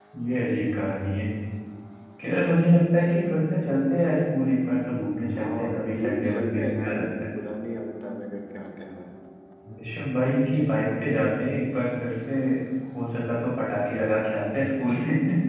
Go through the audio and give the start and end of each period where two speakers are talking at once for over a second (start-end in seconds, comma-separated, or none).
5.4-7.0